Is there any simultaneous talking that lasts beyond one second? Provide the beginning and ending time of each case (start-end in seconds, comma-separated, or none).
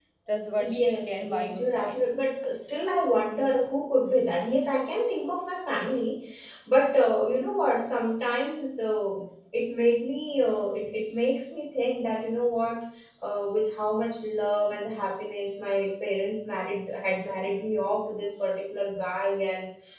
0.6-2.0